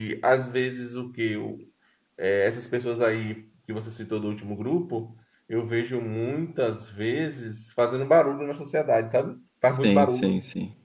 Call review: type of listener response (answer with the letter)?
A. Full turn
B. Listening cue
A